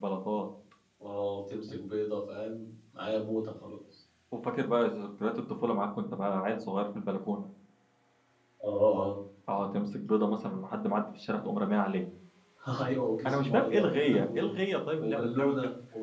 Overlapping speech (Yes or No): Yes